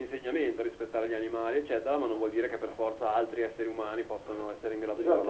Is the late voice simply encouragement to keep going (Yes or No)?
No